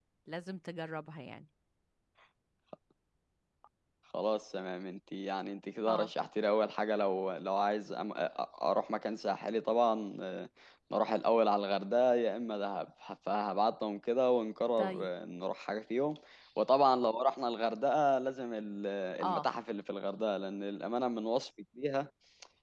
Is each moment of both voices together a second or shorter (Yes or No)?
Yes